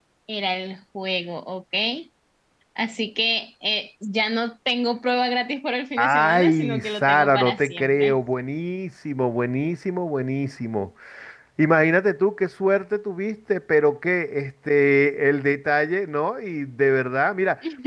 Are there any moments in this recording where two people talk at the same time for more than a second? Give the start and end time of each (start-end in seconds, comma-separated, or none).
6.0-8.2